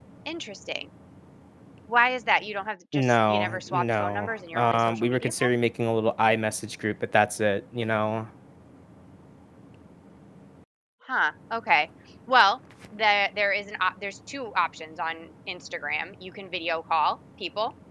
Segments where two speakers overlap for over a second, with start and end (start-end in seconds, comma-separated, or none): 2.9-5.5